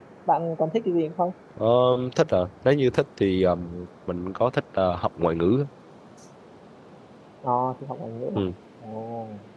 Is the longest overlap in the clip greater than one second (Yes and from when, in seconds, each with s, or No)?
No